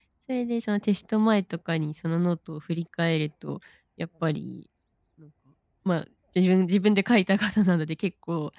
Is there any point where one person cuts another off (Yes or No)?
No